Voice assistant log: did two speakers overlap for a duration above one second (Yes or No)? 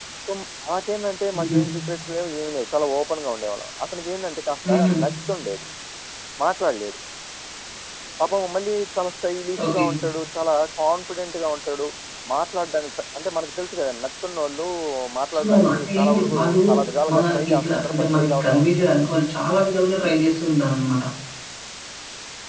Yes